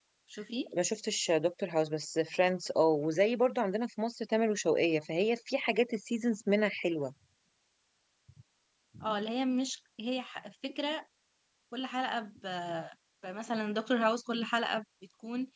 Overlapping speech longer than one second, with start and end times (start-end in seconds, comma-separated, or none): none